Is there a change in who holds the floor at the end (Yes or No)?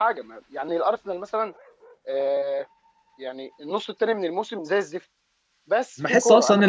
Yes